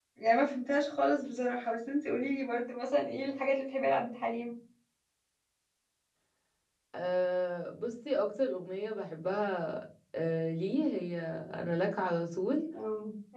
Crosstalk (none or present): none